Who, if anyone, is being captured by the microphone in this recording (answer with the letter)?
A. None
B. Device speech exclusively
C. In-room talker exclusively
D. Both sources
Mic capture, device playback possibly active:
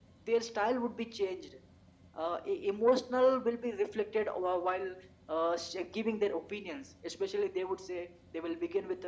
B